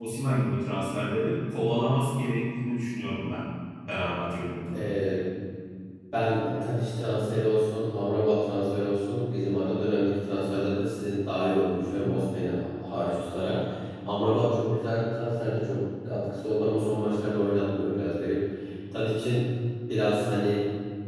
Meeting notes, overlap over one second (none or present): none